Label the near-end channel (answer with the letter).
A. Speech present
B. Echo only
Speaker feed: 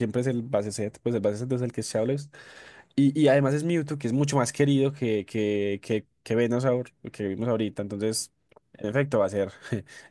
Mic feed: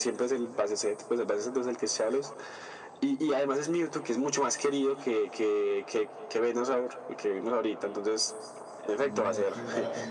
A